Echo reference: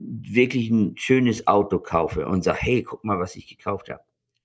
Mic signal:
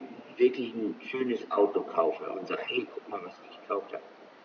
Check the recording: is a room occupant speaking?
No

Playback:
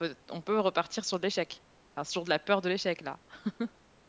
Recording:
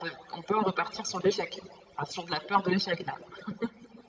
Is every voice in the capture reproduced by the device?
No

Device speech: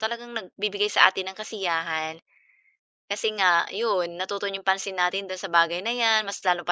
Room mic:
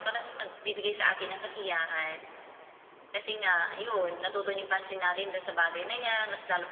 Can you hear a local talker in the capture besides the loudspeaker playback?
No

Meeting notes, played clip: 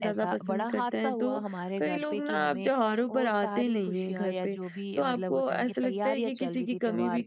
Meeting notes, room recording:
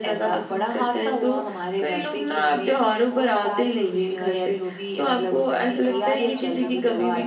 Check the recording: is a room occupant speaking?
Yes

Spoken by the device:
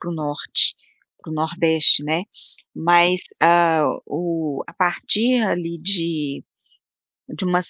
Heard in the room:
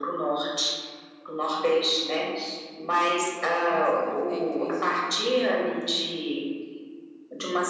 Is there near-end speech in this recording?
Yes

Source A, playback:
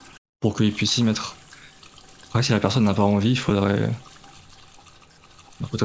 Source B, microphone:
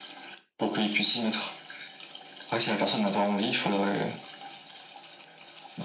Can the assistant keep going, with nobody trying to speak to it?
Yes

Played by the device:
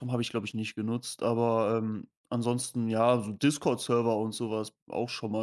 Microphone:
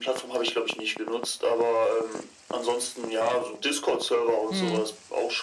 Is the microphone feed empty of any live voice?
No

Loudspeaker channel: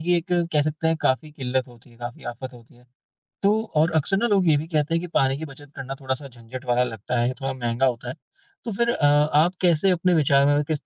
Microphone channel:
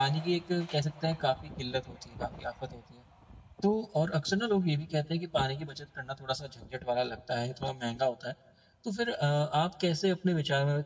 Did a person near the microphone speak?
No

